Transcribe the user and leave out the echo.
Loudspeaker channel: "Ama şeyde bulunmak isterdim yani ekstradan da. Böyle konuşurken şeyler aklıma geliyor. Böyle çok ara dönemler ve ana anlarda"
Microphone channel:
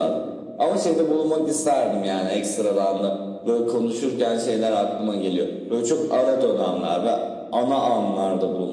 none

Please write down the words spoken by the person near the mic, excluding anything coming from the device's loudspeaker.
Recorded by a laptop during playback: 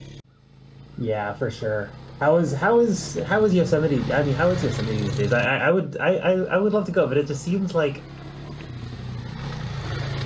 Yeah, for sure. How is how is how is Yosemite? I mean, how is Yosemite these days? I I, I would I, I I would love to go, but it just seems like

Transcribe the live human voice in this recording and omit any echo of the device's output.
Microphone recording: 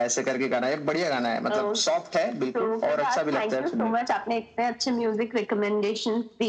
none

